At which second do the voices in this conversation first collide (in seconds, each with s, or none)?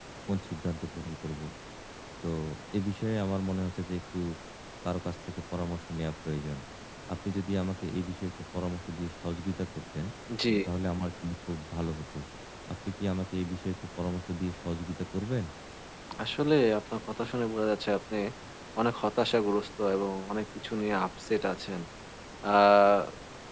none